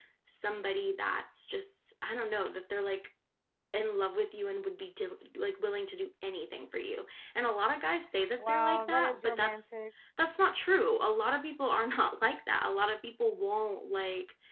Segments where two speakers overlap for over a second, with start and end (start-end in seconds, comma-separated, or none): 8.4-9.7